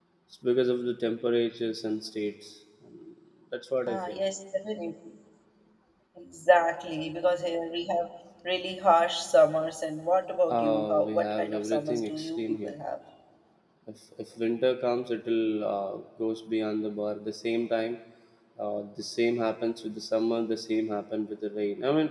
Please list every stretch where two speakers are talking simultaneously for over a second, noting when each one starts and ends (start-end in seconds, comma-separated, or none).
10.5-12.7